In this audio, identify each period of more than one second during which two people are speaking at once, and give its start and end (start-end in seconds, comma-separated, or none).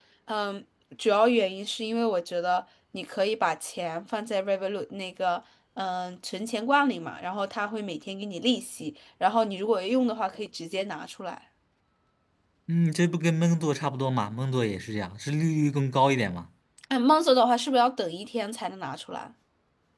none